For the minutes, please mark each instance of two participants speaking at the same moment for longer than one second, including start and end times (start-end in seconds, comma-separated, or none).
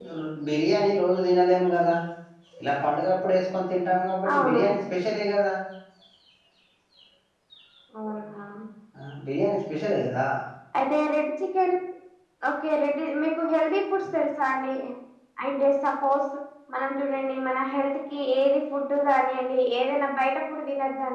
none